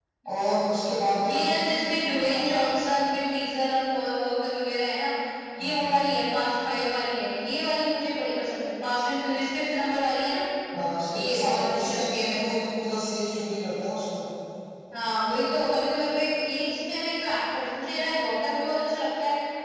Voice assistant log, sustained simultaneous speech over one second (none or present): present